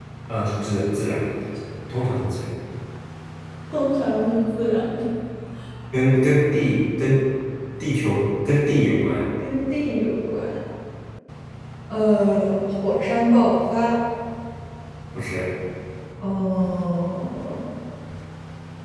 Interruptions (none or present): none